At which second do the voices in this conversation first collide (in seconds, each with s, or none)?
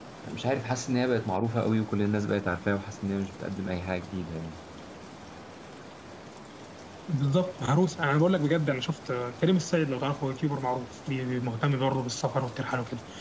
none